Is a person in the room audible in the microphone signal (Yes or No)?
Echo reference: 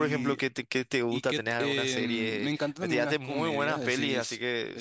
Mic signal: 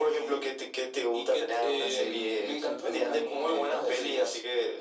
Yes